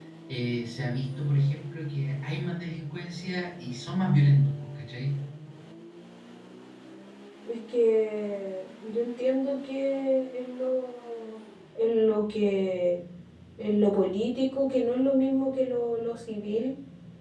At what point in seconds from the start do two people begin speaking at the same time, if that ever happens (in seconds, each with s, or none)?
none